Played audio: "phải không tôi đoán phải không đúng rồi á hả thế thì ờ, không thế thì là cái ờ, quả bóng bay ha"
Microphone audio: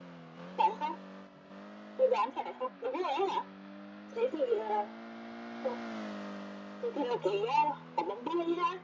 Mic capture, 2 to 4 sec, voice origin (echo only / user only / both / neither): echo only